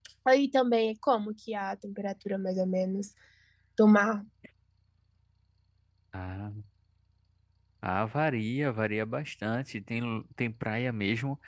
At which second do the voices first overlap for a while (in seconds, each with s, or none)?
none